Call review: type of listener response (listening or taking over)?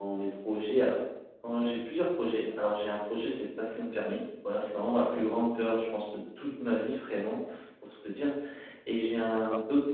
listening